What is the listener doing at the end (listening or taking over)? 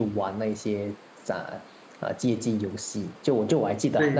listening